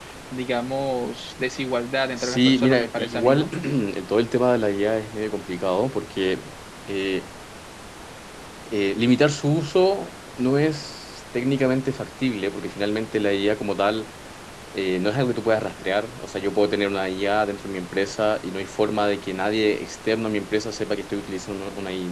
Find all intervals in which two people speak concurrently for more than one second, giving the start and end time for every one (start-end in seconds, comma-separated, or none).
2.2-3.5